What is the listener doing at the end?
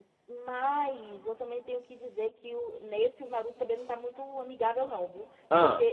listening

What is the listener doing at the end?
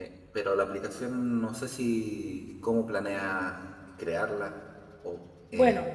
taking over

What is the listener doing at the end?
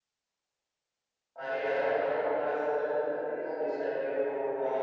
listening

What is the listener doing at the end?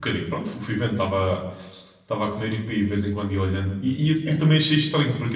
listening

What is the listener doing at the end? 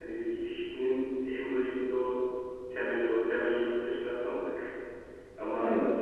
listening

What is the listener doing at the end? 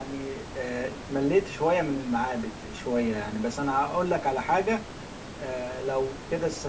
listening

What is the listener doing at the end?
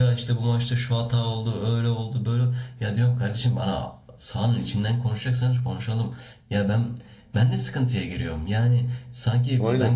listening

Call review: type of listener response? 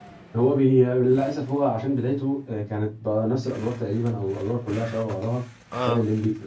listening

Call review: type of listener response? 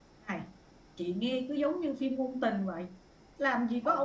listening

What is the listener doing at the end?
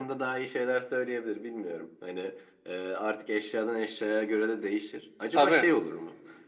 listening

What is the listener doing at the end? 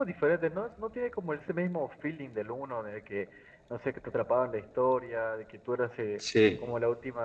listening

